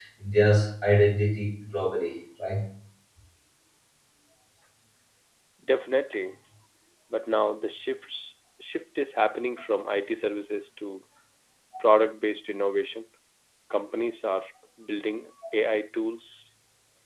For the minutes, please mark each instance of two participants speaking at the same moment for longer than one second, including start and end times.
none

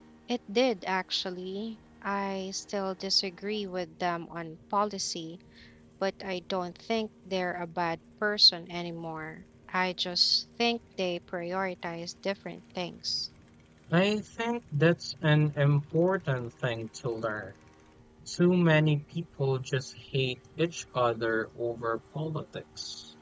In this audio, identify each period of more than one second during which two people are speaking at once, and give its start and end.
none

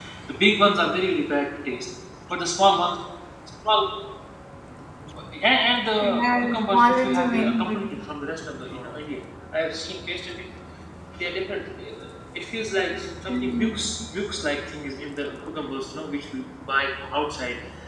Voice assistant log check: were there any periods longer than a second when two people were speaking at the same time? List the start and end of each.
6.0-7.8

